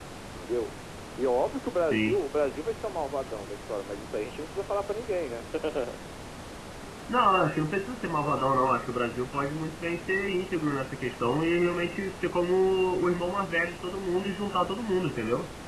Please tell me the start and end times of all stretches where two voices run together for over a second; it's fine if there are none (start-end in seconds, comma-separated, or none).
none